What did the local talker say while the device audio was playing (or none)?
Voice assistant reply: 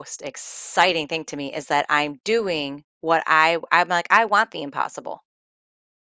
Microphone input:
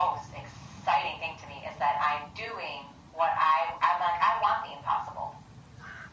none